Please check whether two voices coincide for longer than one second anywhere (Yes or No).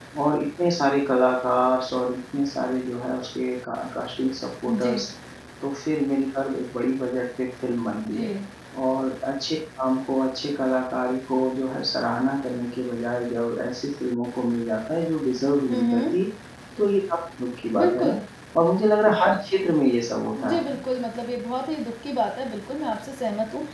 No